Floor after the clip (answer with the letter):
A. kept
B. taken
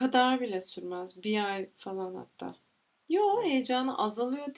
A